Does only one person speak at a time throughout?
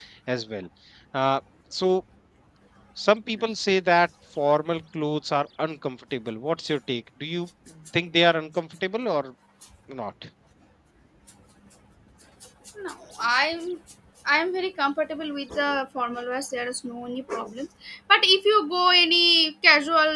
Yes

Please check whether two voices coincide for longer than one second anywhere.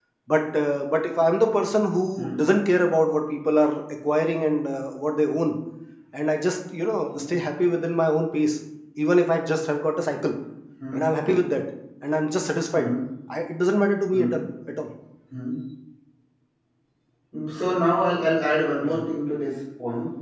No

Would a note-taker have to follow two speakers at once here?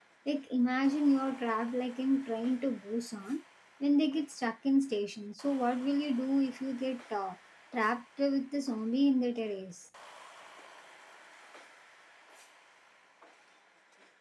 No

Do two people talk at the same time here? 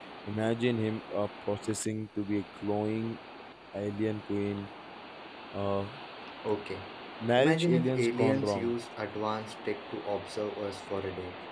Yes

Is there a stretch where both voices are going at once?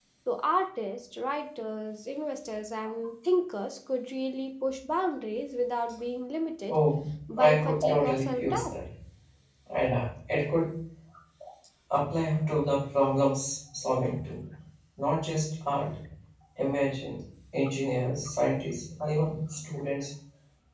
Yes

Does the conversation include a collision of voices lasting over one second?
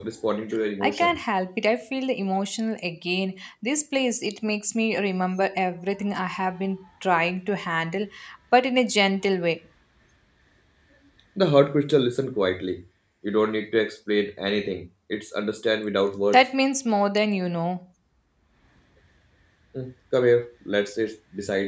No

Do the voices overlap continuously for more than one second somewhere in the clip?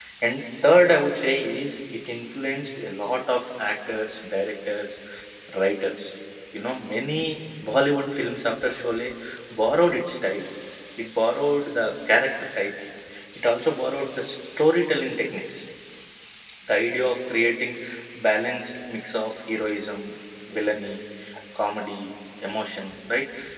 No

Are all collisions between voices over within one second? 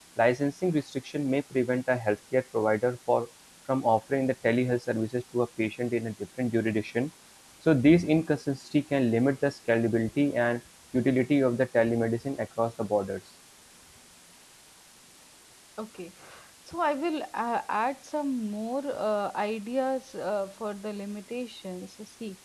Yes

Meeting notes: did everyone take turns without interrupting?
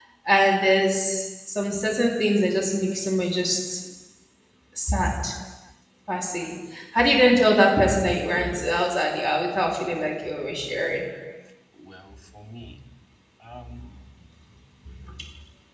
Yes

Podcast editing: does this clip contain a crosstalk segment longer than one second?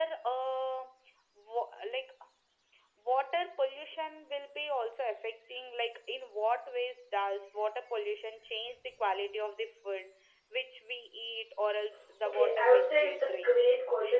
Yes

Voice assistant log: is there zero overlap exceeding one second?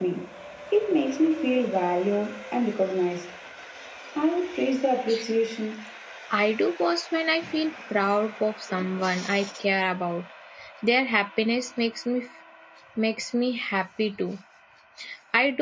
Yes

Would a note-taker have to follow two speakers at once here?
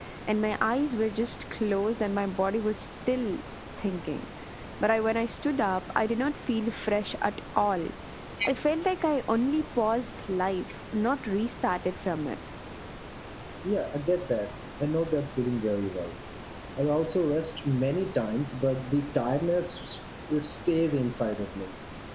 No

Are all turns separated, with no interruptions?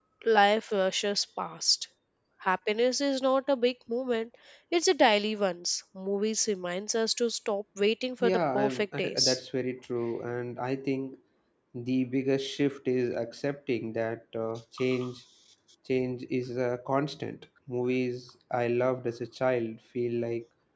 No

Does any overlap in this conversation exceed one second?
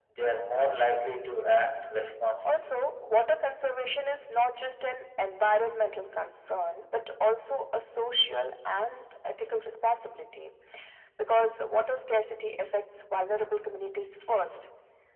No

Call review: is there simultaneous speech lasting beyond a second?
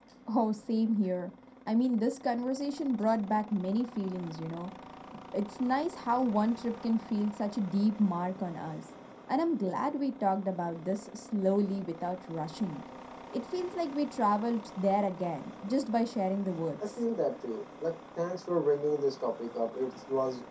No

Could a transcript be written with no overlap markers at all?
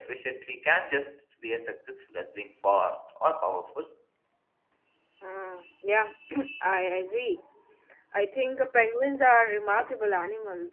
Yes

